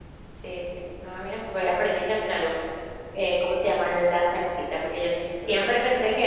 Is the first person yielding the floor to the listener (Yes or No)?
No